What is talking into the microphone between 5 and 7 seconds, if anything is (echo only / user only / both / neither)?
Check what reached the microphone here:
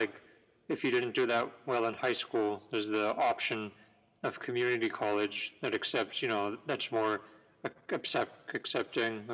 echo only